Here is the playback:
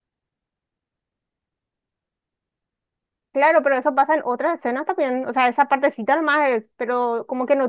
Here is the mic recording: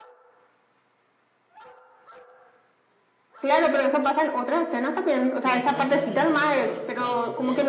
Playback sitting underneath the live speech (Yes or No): No